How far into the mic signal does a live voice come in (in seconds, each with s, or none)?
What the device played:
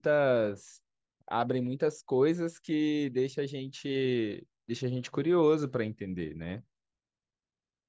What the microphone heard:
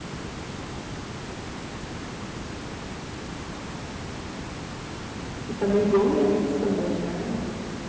5.5 s